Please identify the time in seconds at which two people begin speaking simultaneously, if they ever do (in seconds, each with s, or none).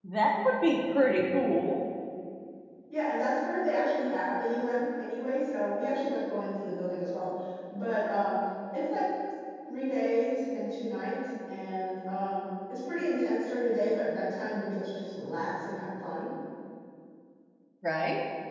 none